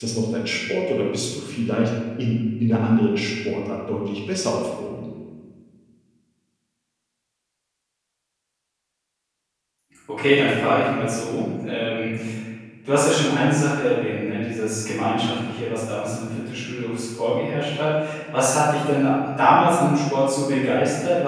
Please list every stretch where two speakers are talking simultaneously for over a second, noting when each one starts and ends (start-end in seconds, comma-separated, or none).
none